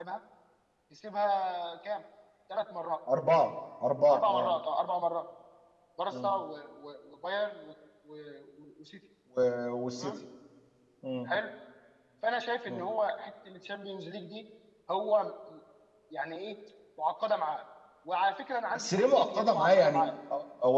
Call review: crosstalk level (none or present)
present